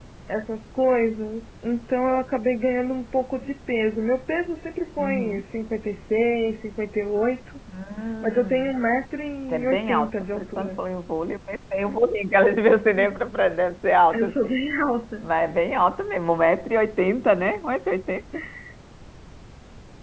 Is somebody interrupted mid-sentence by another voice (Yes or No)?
Yes